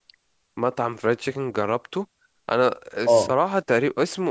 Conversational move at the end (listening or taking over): listening